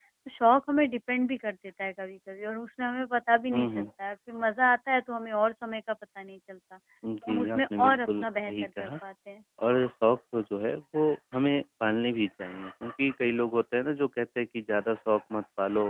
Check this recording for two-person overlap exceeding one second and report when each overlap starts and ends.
7.3-8.9

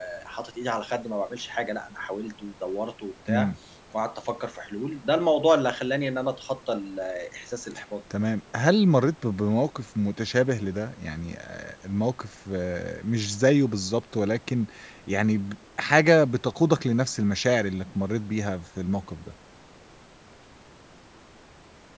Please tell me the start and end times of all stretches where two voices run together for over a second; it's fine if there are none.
none

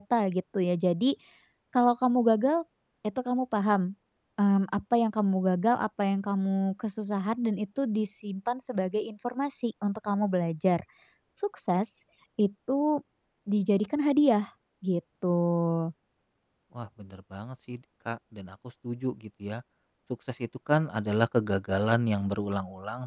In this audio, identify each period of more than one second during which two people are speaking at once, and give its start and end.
none

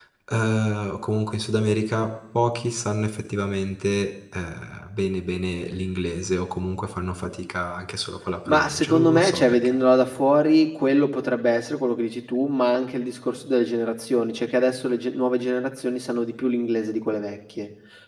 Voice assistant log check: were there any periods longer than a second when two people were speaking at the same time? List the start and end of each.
8.5-9.8

